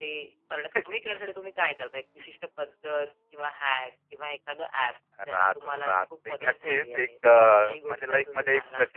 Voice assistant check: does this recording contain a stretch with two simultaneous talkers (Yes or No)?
Yes